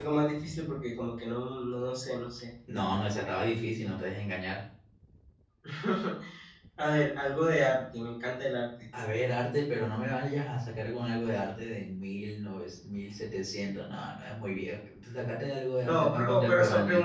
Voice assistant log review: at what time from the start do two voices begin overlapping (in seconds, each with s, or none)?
15.8 s